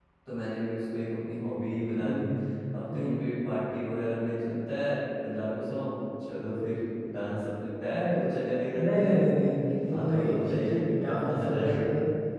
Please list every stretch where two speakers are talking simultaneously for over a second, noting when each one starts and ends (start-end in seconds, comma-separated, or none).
9.9-11.6